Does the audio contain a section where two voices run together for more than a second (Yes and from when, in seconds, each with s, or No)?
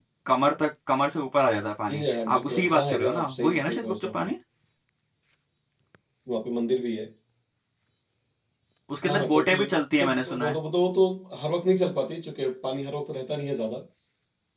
Yes, from 1.9 s